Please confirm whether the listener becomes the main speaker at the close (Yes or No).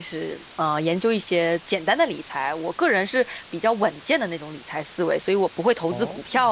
No